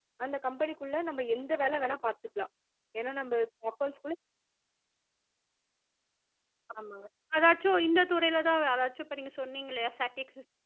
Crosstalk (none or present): none